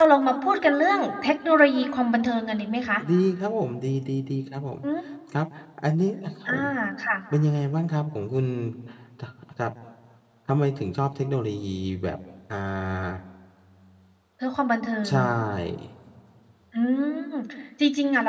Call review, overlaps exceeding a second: none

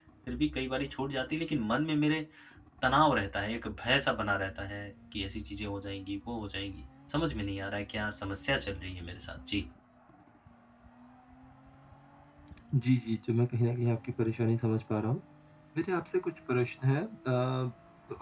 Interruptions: none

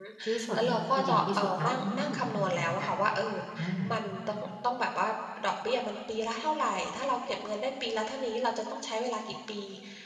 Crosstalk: present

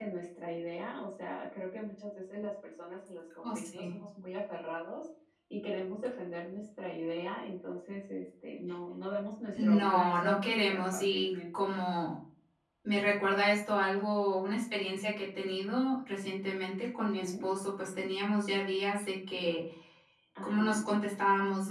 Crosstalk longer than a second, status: present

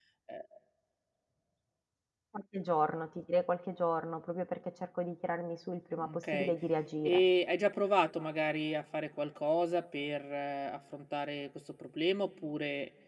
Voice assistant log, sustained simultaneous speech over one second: none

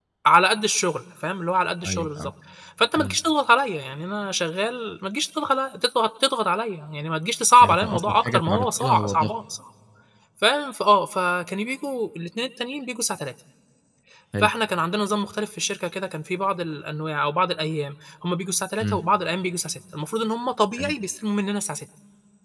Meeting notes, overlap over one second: present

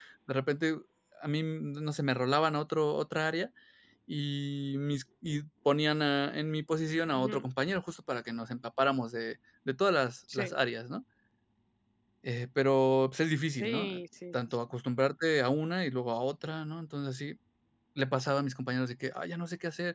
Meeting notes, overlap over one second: none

